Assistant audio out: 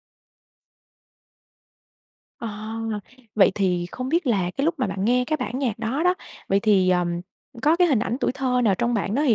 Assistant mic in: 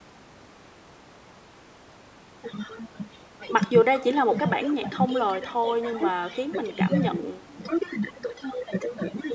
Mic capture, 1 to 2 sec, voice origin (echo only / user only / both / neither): neither